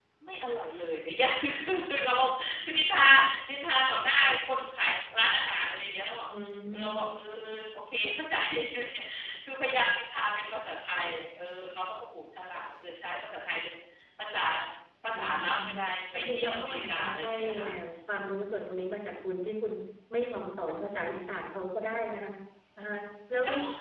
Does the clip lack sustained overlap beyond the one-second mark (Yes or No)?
No